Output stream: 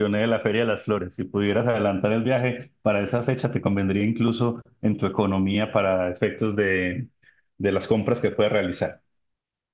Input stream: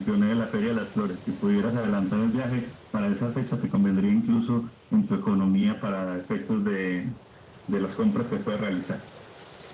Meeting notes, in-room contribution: none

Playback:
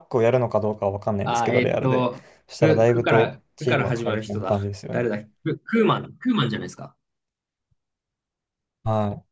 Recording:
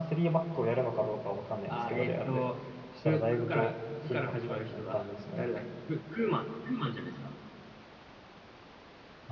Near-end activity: none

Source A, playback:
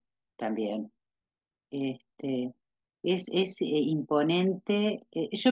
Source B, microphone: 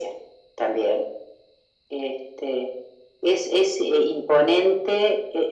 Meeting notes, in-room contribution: none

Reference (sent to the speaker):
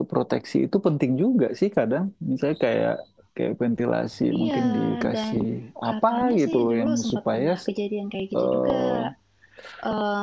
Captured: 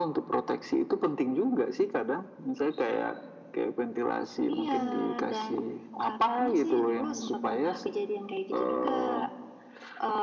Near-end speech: none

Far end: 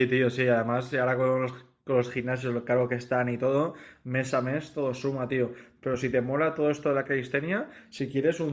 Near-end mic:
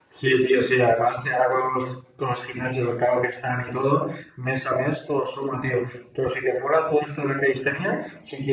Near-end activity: none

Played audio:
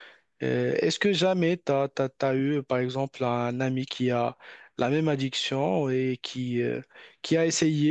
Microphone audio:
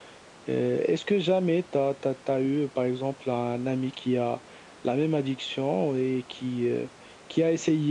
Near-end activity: none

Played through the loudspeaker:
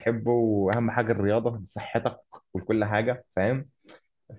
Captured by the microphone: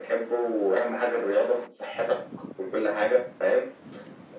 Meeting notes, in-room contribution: none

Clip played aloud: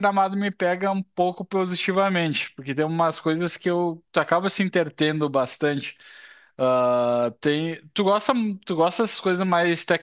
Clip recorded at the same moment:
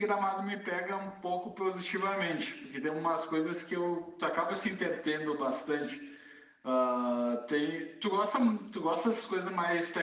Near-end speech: none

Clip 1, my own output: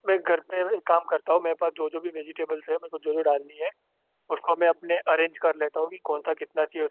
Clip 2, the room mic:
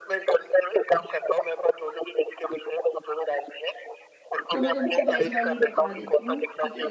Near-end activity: present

